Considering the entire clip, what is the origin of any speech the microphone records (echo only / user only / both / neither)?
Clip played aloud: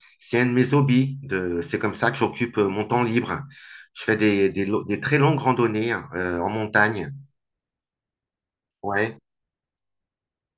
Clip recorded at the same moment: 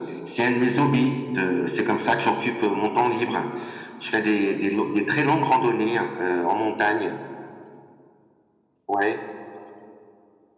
echo only